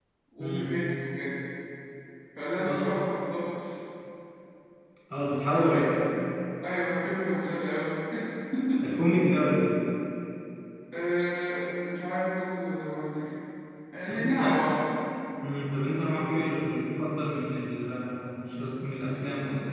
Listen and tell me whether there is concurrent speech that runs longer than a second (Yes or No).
No